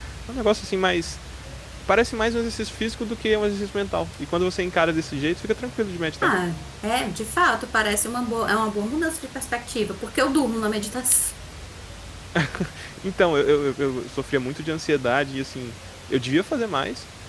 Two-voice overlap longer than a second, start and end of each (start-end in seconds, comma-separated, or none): none